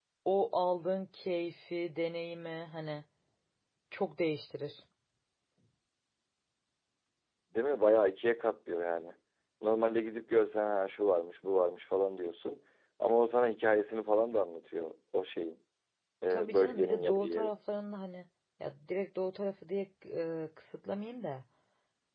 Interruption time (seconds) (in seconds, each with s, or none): 16.3 s